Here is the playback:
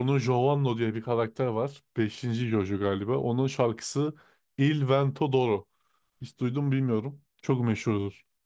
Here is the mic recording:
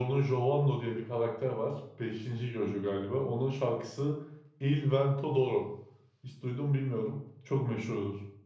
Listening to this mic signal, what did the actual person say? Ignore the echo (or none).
none